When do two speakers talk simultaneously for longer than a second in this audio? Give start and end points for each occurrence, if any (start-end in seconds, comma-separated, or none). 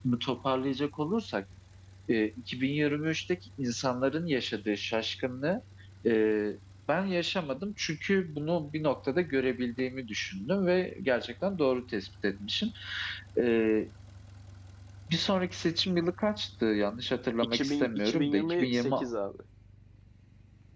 17.4-19.1